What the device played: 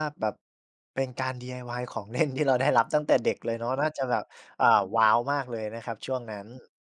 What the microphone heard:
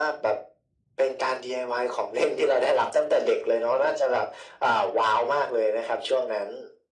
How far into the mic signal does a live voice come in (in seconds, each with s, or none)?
none